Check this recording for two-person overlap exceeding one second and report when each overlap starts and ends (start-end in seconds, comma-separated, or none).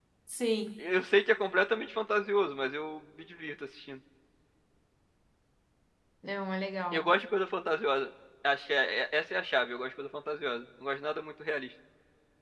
none